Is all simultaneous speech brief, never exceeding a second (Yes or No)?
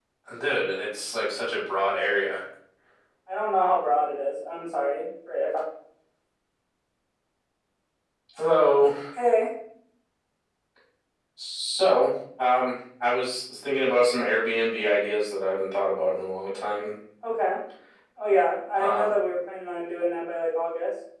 Yes